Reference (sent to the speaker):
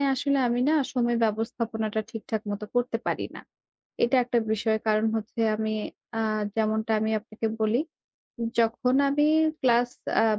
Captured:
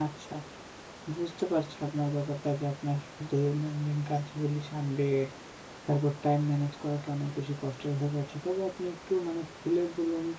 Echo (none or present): none